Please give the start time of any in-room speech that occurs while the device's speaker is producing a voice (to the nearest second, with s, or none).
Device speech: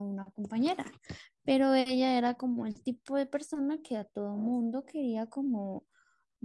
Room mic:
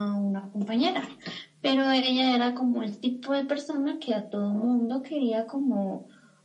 none